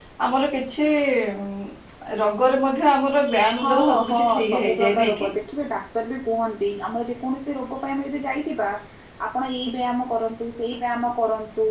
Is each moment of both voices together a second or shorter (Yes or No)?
No